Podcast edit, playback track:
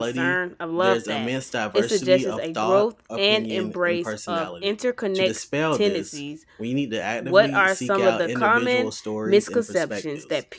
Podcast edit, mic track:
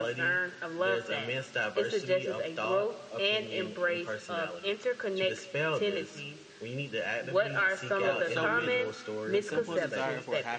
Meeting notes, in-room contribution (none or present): present